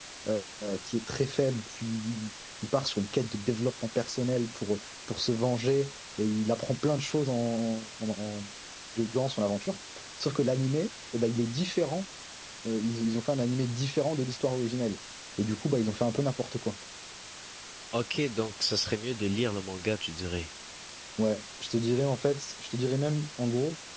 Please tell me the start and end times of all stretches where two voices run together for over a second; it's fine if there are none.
none

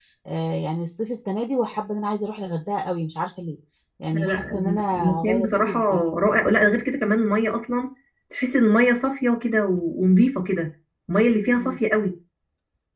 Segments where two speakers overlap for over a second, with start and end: 4.1-5.8

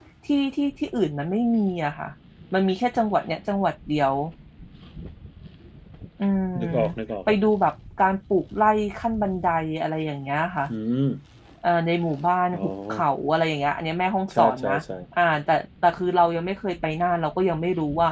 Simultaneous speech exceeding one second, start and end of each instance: none

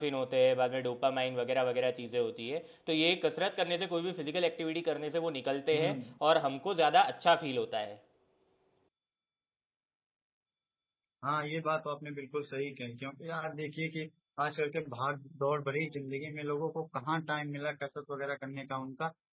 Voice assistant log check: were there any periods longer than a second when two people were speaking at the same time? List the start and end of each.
none

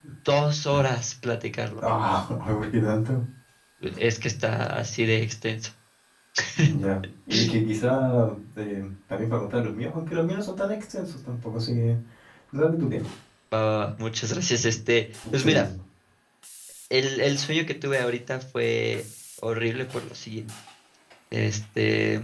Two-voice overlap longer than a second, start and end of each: none

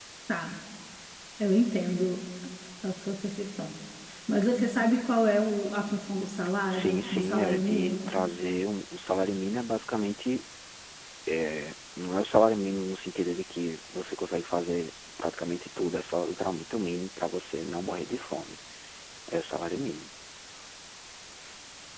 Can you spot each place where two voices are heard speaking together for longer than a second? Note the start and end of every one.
6.7-8.1

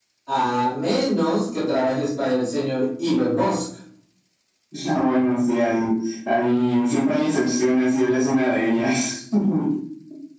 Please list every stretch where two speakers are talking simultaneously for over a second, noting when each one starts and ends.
none

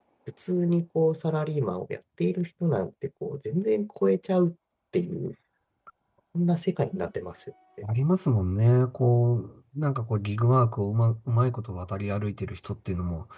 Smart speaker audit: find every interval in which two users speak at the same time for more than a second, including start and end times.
none

